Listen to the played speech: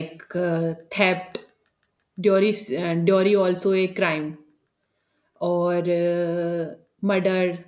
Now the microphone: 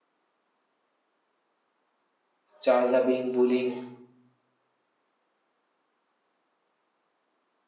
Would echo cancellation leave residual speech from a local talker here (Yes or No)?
Yes